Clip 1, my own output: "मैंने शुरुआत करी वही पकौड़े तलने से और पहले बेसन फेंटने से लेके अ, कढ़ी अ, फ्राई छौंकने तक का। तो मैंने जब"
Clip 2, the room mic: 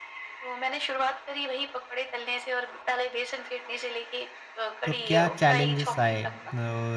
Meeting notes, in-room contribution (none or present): present